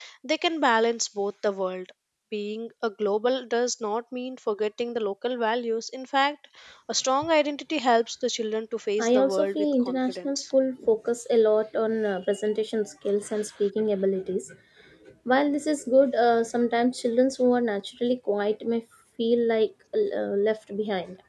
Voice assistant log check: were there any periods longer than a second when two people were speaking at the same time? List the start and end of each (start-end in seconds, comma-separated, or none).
9.0-10.4